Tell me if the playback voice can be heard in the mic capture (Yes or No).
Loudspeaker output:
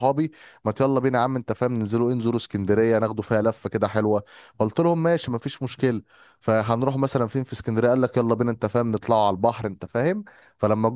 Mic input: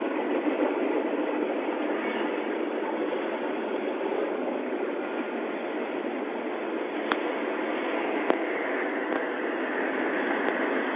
No